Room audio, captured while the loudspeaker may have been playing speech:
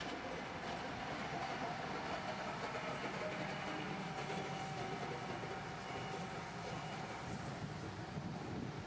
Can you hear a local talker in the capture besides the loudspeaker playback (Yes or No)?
No